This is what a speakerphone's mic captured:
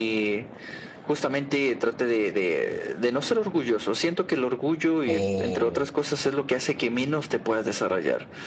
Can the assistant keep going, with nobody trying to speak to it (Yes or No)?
No